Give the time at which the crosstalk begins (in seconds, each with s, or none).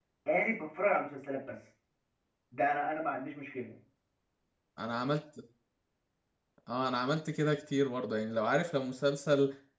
none